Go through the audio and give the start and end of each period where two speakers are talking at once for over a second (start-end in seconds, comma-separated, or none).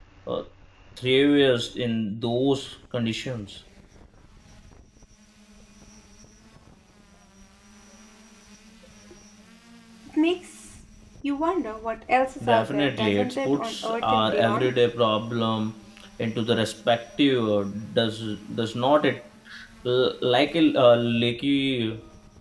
12.5-14.7